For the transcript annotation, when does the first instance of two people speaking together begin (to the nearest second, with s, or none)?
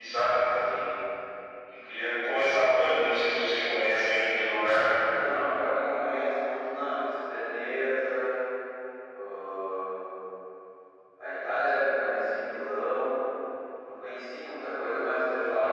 none